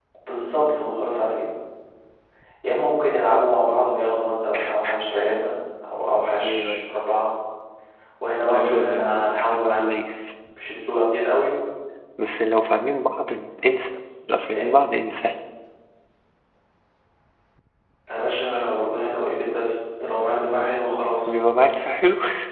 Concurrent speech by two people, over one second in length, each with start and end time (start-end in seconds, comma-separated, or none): 8.4-9.8